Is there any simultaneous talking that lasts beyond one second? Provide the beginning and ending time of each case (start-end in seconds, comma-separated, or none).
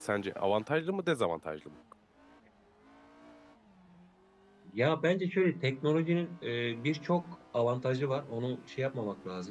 none